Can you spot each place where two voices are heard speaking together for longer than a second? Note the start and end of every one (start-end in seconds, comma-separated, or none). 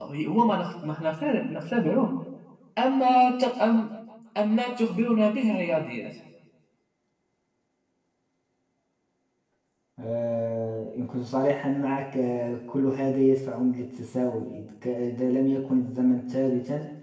none